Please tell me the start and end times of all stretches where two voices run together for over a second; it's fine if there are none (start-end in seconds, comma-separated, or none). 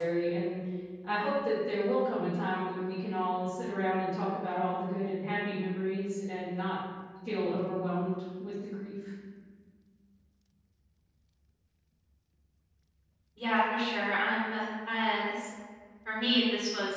none